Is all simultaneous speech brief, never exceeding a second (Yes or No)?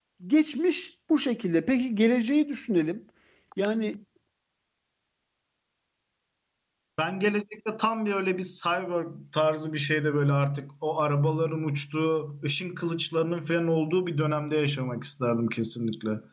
Yes